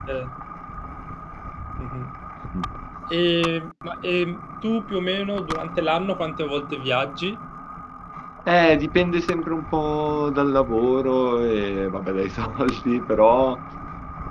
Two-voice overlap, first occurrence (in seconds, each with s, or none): none